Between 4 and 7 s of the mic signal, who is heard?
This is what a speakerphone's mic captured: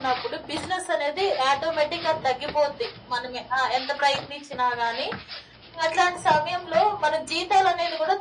echo only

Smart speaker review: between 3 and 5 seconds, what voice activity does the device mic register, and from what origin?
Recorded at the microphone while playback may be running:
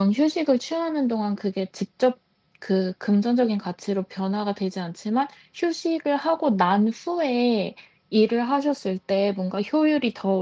user only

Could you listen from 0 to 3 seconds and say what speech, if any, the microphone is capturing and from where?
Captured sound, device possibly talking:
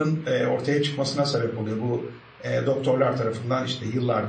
user only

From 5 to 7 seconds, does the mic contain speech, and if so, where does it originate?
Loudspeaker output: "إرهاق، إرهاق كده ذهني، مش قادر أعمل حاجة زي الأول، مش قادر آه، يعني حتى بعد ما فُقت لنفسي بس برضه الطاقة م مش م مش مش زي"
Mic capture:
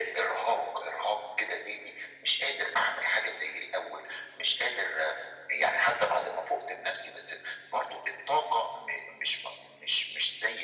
echo only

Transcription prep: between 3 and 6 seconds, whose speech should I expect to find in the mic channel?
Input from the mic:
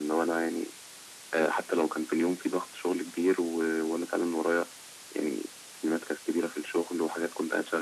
echo only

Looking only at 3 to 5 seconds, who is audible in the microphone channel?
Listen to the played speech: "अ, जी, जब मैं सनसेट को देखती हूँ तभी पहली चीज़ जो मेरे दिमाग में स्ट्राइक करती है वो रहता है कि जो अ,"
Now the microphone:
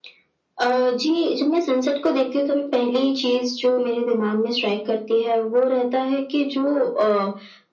echo only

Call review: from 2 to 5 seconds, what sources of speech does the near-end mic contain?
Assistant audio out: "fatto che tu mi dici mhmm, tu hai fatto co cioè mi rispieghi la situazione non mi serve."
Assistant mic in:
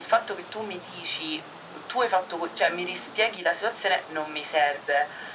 echo only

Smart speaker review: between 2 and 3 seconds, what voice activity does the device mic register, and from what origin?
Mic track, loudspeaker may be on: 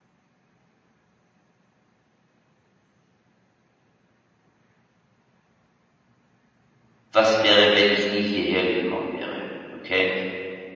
neither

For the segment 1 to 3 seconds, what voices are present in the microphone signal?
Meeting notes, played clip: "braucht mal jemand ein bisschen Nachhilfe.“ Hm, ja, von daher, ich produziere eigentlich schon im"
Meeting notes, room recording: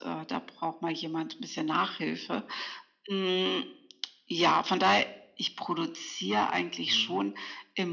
echo only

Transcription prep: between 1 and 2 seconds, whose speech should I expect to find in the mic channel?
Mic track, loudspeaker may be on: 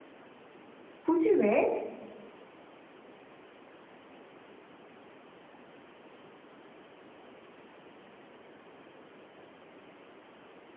user only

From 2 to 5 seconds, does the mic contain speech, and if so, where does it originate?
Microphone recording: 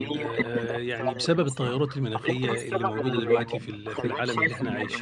both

